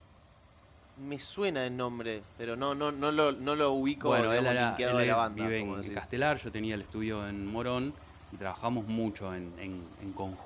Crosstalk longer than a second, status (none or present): present